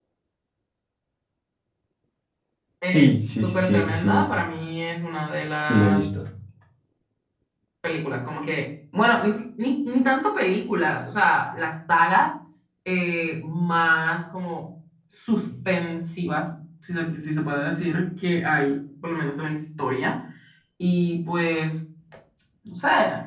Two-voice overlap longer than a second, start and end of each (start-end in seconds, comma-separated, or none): 2.9-4.3